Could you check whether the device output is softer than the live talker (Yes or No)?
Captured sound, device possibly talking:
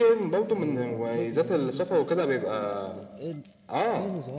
No